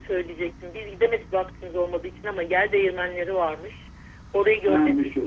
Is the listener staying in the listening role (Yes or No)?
Yes